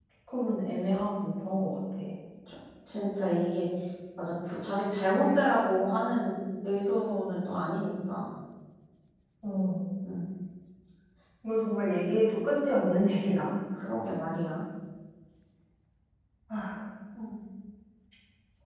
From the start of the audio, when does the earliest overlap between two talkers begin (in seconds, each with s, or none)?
none